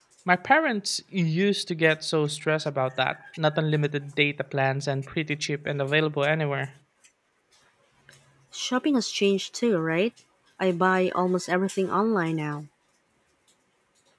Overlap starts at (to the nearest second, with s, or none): none